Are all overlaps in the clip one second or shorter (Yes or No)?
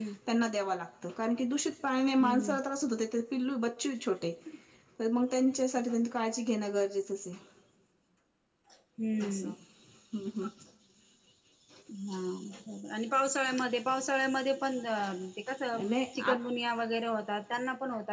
Yes